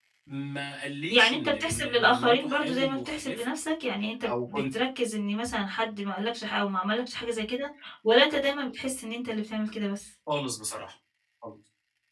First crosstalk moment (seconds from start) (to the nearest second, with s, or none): 1 s